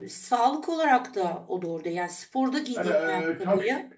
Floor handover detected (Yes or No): No